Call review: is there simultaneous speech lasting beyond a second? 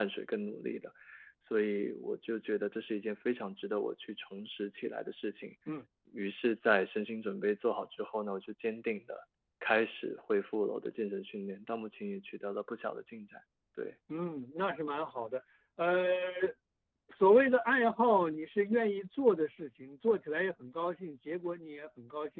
No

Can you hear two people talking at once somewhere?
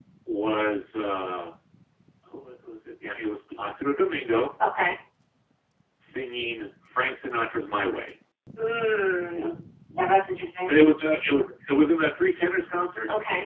No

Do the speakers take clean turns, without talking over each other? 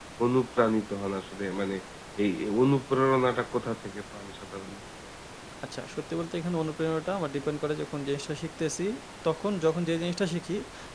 Yes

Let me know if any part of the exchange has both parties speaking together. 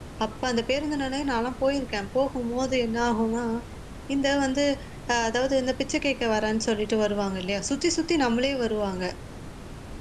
No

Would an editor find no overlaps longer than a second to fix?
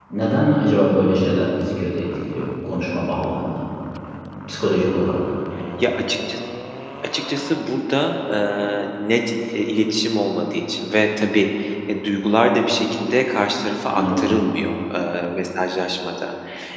Yes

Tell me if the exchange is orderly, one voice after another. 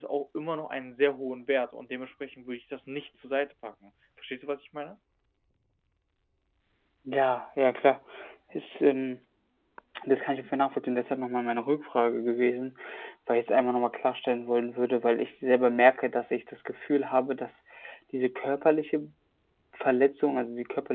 Yes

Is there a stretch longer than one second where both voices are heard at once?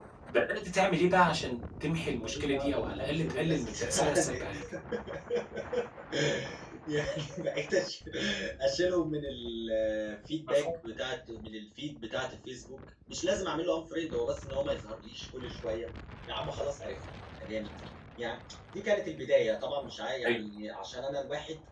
Yes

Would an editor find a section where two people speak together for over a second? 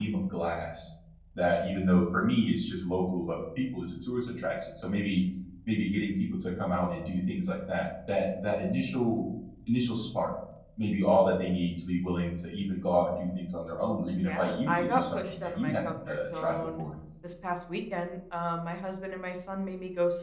Yes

